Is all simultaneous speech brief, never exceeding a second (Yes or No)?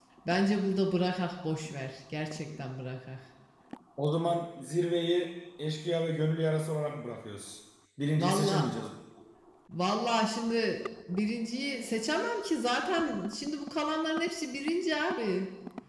Yes